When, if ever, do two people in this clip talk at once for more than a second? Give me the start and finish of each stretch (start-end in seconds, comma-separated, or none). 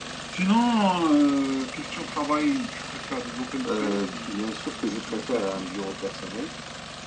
3.8-5.4